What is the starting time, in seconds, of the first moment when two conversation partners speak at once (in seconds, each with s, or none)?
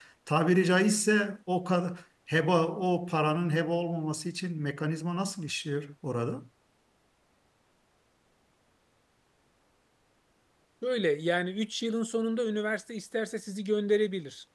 none